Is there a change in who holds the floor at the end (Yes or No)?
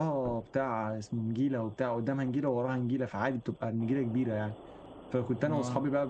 No